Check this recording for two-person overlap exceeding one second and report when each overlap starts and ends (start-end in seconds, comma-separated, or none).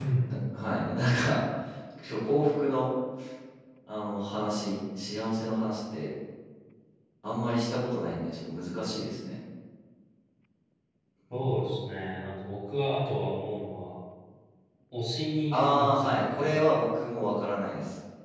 15.5-16.9